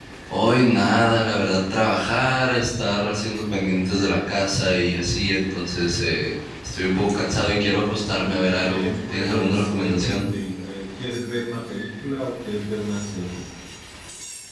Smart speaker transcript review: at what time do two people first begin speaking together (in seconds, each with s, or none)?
8.6 s